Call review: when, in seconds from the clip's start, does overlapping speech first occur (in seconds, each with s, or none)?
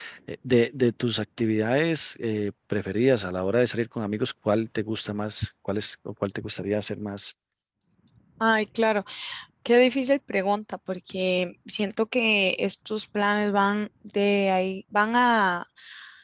none